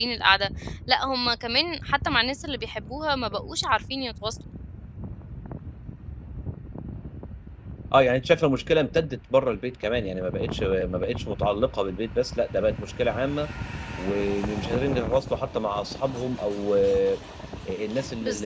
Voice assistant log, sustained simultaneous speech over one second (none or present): none